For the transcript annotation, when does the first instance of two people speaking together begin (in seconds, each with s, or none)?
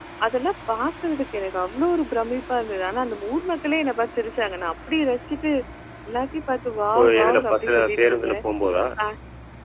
7.0 s